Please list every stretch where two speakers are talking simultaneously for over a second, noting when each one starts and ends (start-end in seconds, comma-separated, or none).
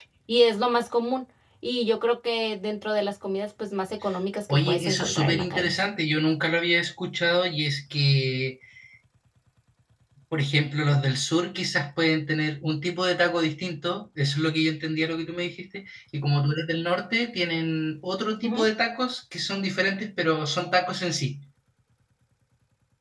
4.5-5.8